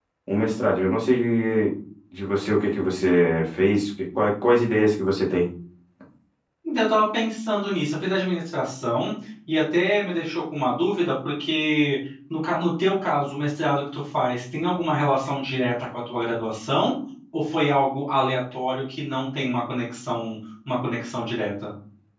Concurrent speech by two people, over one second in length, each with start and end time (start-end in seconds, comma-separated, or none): none